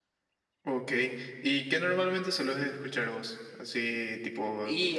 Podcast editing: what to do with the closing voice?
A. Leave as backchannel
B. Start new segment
A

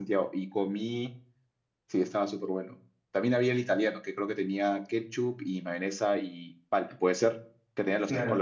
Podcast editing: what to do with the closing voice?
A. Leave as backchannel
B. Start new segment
B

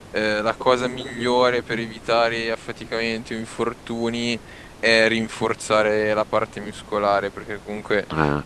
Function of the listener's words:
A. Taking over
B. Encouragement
B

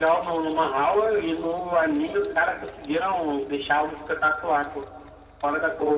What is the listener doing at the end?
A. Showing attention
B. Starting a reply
B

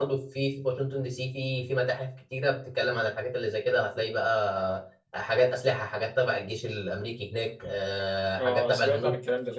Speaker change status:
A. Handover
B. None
A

